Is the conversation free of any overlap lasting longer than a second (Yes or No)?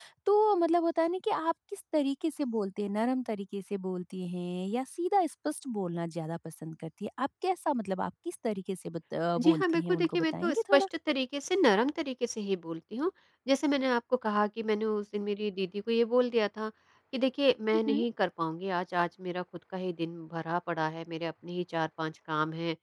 No